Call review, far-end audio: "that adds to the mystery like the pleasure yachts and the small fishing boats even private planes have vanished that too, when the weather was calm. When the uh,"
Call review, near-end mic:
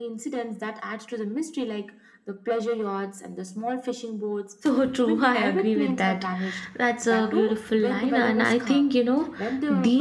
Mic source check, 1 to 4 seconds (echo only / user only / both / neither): echo only